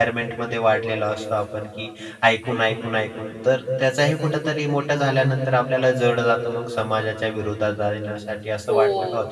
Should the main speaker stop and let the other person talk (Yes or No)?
Yes